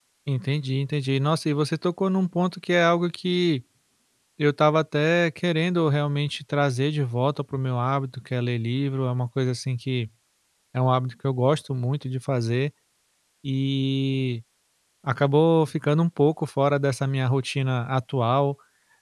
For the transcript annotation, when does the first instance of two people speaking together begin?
none

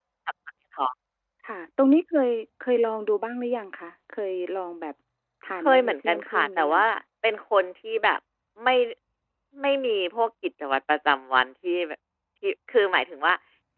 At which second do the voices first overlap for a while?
5.6 s

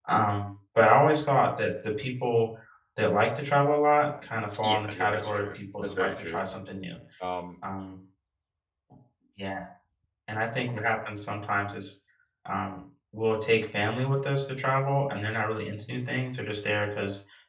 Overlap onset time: 4.6 s

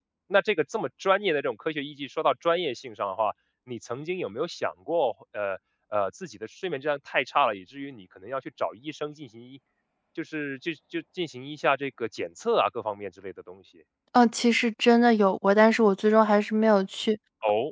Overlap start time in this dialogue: none

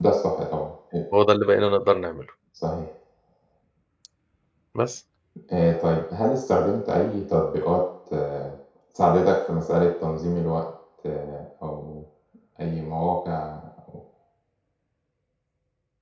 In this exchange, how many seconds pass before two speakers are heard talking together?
none

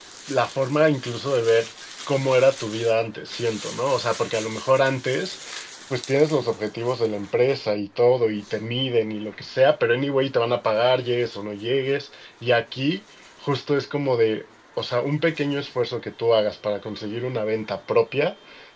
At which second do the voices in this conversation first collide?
none

